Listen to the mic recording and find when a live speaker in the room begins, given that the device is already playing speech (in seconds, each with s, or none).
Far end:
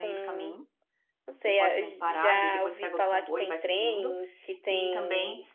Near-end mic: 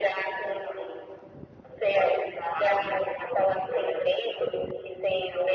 none